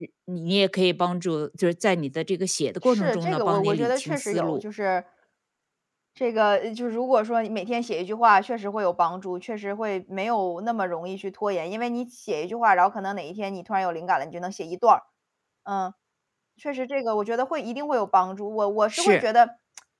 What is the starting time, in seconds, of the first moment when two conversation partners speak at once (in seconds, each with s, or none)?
2.9 s